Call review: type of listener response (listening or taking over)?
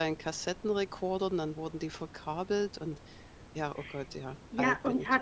taking over